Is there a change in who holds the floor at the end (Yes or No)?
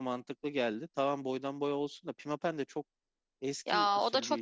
Yes